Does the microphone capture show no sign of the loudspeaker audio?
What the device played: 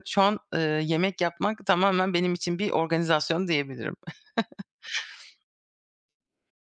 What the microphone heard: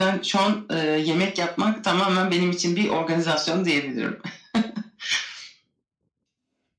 No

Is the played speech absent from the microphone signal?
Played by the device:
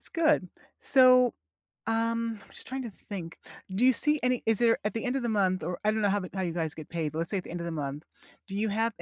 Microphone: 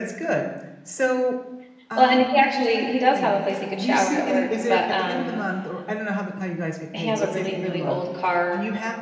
No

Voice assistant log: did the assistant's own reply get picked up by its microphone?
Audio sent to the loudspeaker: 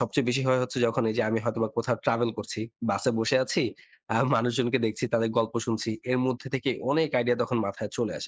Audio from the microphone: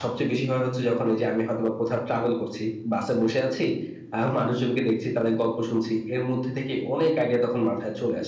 Yes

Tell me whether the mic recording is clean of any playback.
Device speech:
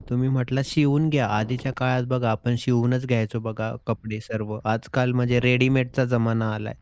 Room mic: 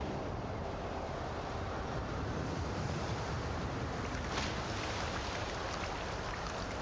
Yes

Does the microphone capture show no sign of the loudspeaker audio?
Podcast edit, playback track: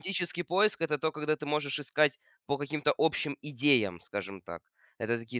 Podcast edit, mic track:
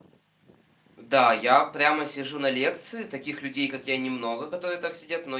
Yes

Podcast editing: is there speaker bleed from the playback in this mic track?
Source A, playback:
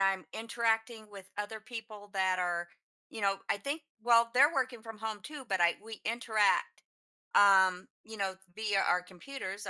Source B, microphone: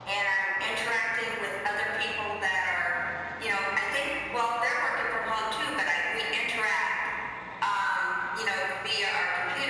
Yes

